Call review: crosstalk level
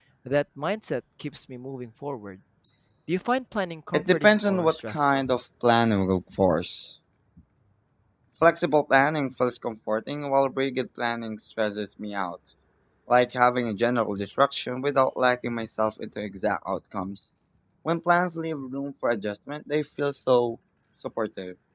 present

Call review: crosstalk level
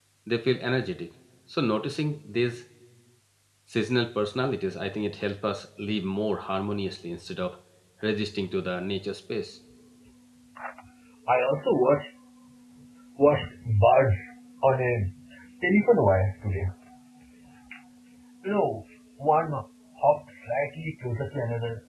none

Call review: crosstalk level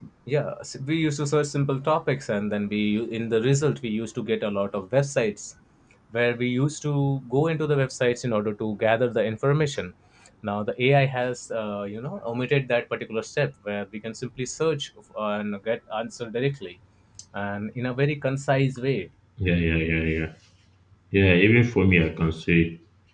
none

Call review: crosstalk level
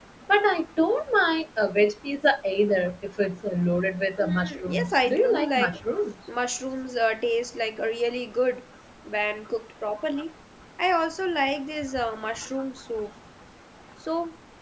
present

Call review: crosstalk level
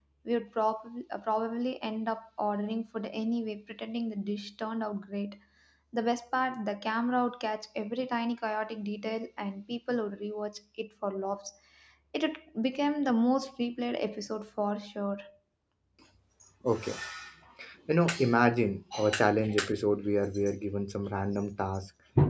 none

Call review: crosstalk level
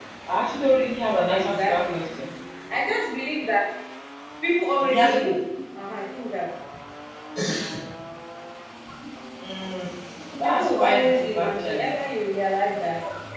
present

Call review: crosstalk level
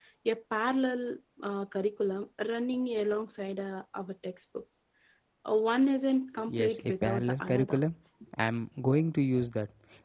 present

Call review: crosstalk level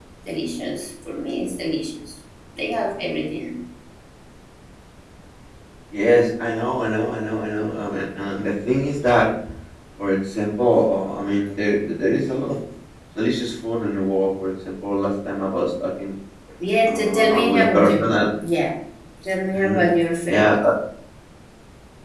present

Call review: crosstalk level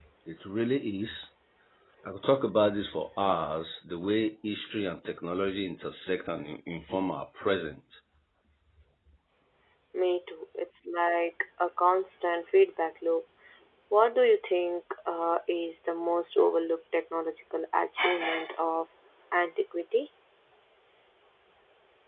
none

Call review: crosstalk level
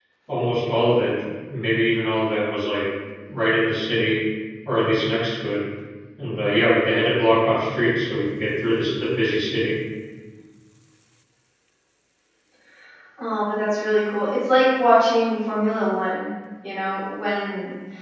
none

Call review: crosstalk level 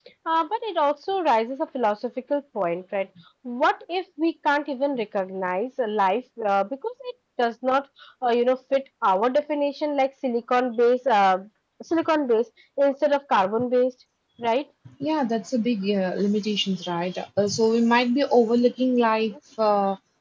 none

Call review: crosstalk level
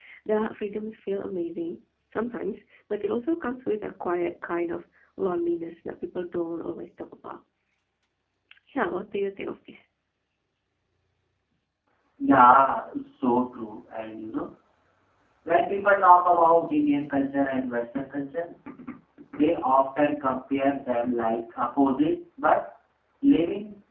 none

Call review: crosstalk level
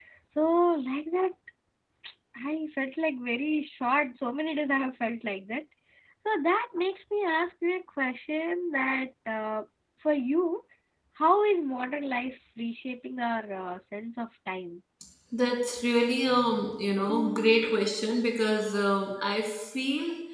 none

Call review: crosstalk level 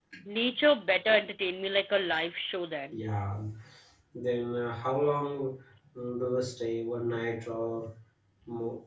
none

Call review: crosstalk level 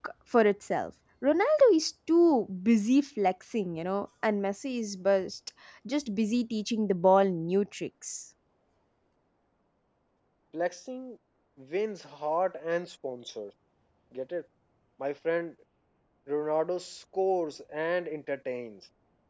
none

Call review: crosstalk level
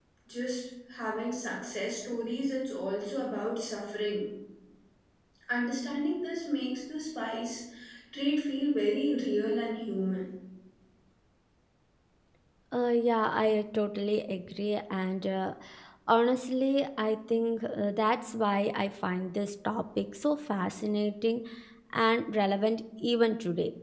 none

